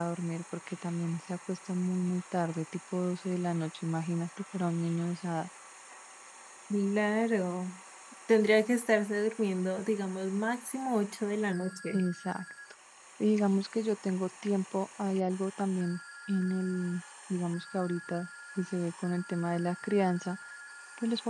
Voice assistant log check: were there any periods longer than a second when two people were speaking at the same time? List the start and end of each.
none

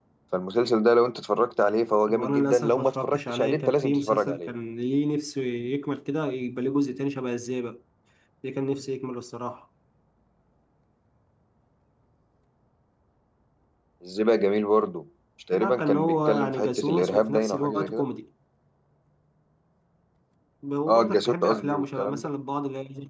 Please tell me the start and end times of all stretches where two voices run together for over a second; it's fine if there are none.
2.1-4.5, 15.5-18.0, 20.9-22.3

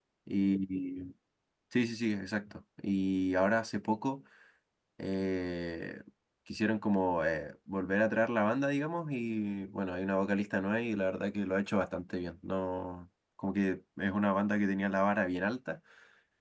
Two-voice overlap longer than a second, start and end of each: none

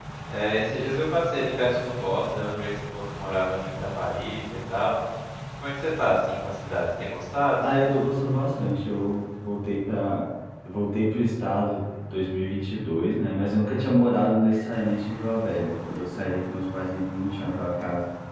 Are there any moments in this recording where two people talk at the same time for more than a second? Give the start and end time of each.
none

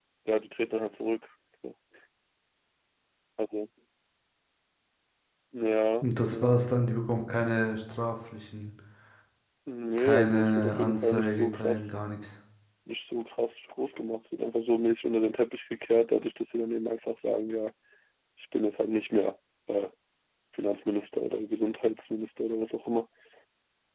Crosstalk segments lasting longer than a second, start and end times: 10.0-11.9

